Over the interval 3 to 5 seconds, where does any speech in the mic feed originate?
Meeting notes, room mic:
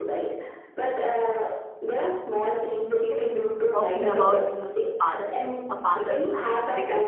both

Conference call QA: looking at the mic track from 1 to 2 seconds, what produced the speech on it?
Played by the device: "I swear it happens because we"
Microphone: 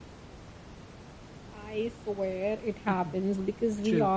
echo only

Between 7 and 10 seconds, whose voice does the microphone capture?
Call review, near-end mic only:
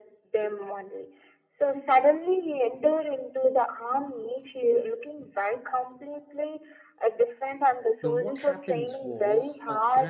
both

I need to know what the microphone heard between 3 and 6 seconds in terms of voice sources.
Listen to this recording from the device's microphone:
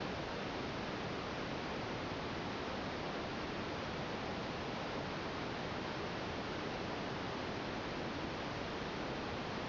neither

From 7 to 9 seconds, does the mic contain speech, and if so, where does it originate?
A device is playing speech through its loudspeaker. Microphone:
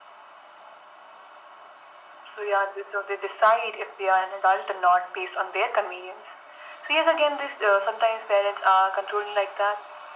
echo only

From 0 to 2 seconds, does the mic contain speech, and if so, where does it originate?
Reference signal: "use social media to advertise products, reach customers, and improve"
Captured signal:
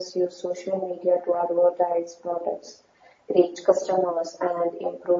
echo only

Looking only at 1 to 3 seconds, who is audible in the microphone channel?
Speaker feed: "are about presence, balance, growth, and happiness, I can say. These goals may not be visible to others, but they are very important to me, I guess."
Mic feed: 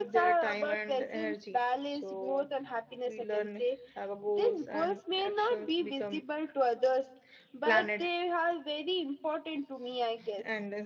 both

